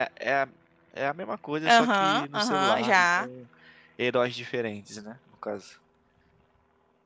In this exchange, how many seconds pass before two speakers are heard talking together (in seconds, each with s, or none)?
1.7 s